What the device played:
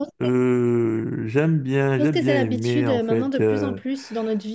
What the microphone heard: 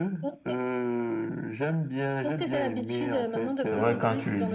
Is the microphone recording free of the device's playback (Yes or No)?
No